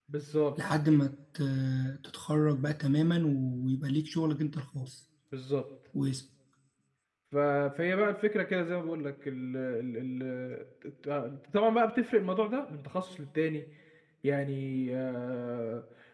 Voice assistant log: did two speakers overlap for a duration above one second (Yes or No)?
No